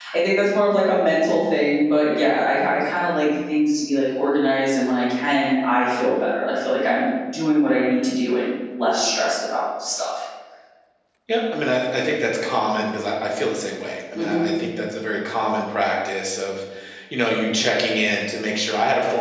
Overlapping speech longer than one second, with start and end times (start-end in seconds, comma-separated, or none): none